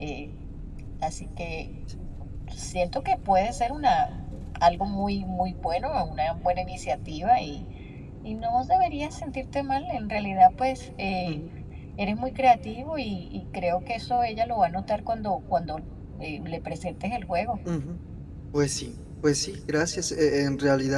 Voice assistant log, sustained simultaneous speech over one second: none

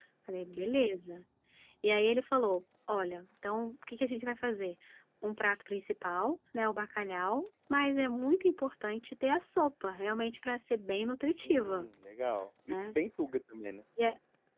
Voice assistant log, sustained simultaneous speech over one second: none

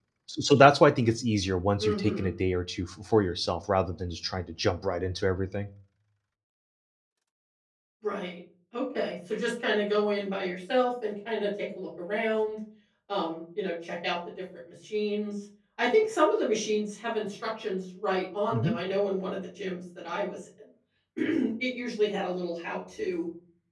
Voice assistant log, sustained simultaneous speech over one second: none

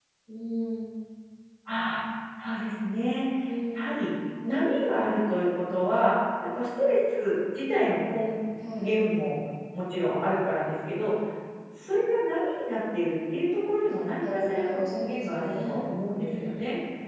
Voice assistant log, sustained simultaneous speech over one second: present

